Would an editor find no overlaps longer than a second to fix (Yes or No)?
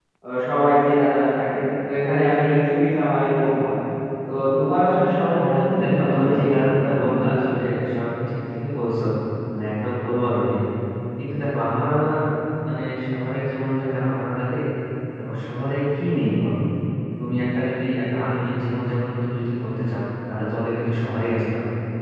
No